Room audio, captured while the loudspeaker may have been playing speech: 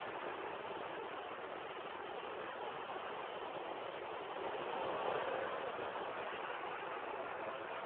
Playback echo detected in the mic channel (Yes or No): No